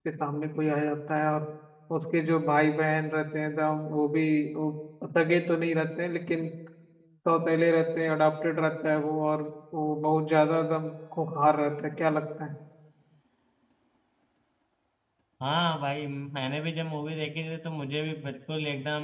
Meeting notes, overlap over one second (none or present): none